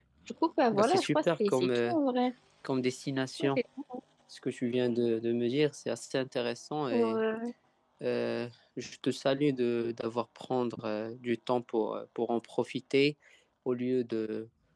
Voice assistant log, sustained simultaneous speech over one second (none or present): present